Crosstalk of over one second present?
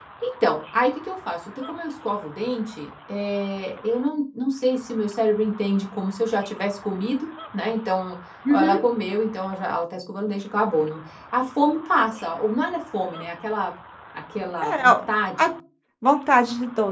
No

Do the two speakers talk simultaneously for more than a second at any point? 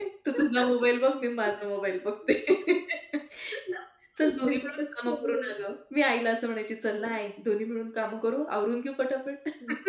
Yes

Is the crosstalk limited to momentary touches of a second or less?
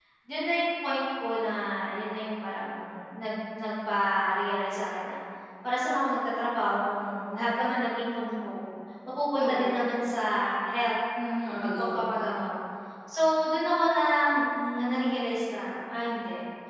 Yes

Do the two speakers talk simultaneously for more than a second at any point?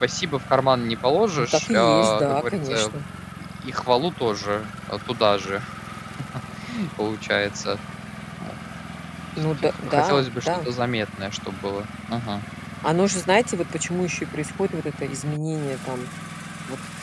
Yes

